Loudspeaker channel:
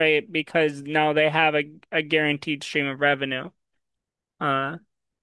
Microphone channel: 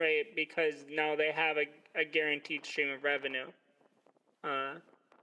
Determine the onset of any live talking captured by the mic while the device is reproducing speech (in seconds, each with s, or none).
none